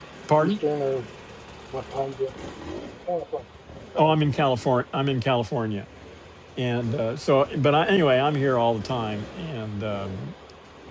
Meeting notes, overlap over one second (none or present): none